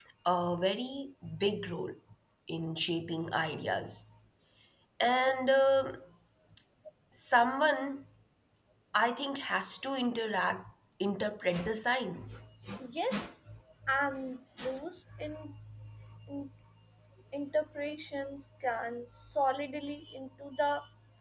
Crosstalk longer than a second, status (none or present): none